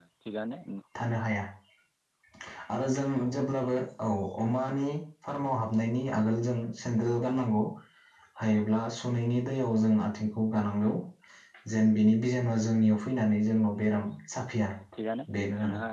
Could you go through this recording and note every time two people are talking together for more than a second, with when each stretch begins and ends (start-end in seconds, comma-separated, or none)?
none